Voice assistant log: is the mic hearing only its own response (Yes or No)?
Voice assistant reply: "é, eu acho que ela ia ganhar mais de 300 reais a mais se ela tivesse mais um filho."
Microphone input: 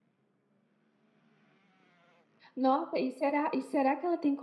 No